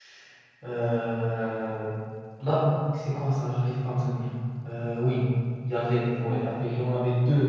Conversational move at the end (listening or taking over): listening